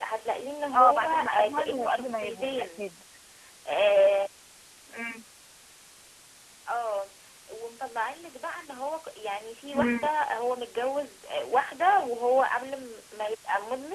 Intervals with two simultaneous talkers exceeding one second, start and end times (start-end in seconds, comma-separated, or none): 0.7-2.9